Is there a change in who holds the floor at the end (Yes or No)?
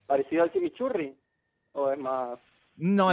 Yes